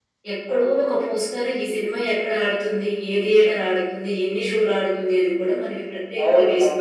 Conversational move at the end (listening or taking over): taking over